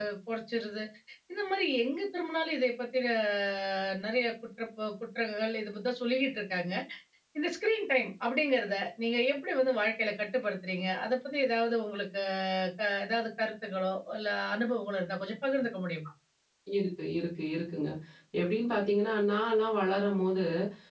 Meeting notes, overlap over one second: none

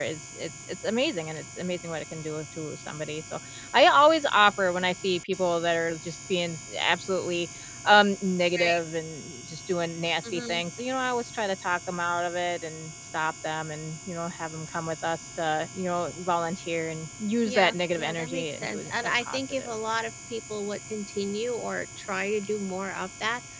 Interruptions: present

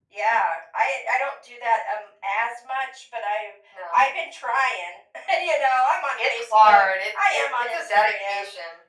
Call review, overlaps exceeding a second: present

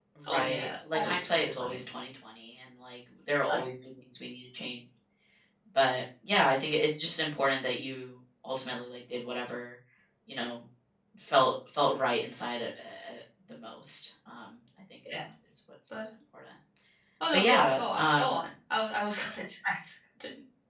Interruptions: present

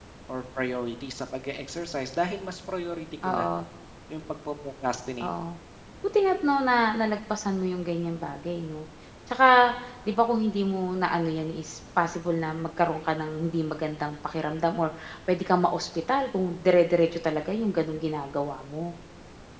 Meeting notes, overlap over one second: none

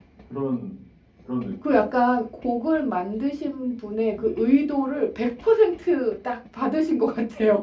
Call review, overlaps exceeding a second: none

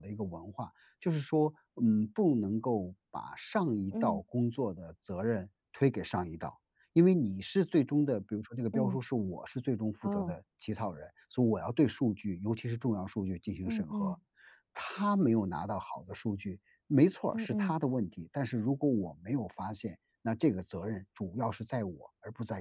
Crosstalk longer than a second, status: none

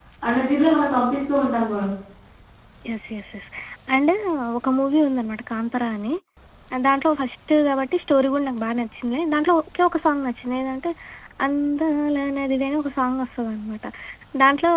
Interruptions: none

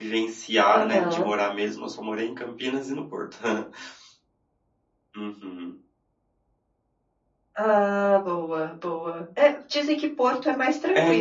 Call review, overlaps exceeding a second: none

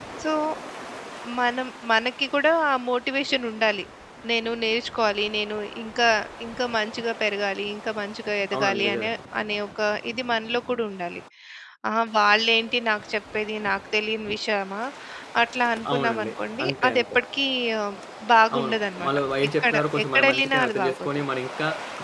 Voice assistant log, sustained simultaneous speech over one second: present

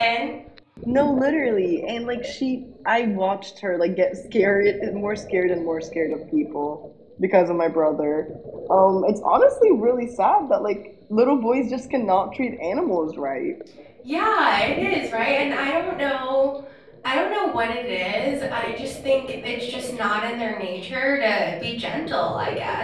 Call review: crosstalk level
none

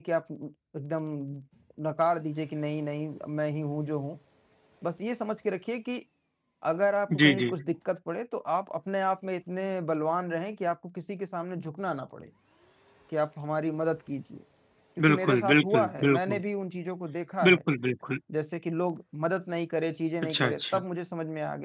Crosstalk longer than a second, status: present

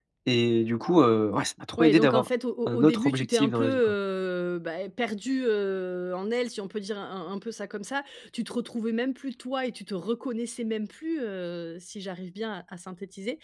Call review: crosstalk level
present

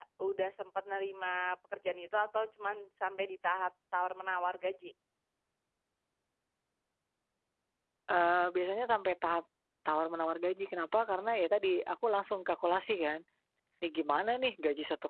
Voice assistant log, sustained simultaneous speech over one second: none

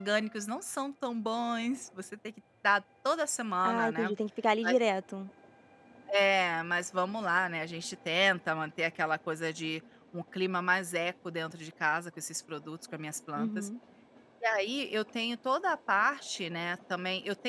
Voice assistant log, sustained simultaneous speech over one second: none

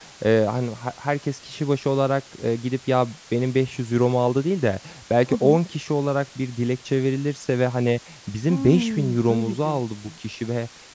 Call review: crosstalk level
present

